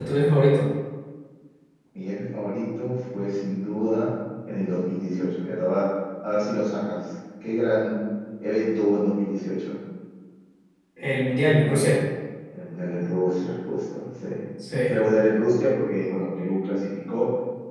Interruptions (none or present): none